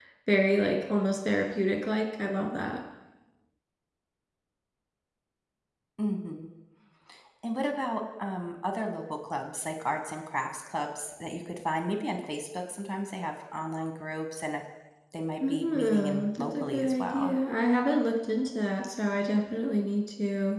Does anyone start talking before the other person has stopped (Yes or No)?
Yes